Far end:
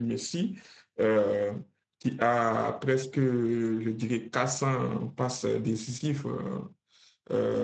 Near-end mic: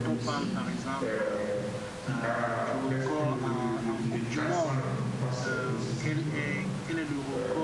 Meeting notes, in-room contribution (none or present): present